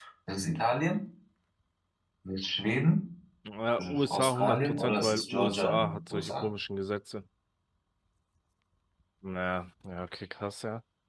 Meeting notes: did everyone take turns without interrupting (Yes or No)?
No